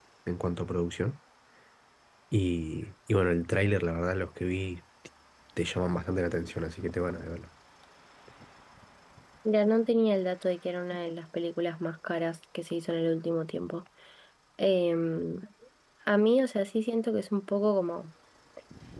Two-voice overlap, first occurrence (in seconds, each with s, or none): none